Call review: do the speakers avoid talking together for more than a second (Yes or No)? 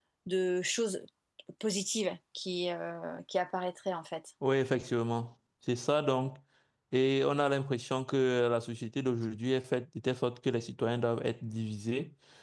Yes